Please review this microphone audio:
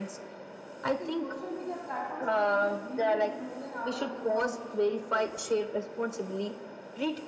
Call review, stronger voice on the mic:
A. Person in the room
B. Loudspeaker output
B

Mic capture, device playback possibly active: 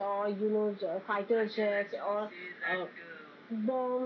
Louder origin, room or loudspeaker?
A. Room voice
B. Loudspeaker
B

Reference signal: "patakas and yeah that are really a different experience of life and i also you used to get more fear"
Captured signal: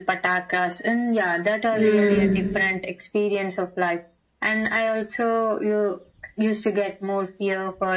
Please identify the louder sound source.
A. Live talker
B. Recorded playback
A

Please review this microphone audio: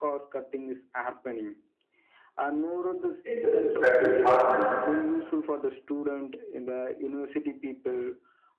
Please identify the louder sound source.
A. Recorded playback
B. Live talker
B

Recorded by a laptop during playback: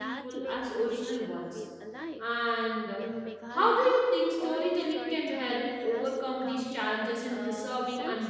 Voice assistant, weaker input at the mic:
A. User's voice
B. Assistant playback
B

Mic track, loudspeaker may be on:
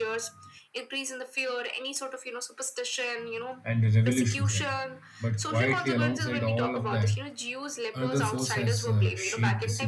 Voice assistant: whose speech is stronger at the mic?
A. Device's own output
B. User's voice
B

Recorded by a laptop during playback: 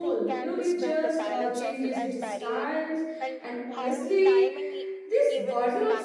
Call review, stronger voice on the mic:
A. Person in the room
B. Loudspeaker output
A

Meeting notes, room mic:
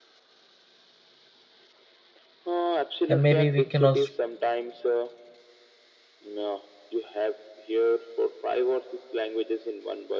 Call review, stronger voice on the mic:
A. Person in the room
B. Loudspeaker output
A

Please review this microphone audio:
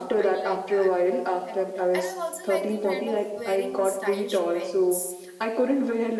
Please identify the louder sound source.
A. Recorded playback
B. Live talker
A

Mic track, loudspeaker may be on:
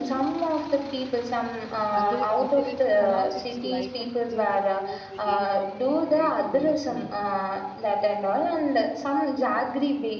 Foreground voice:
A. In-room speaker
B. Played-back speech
B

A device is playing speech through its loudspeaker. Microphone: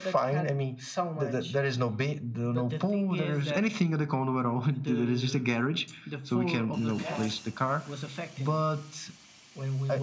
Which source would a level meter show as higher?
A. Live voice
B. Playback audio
B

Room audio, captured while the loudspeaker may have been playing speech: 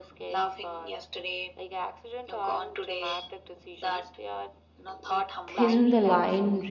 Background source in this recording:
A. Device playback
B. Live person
A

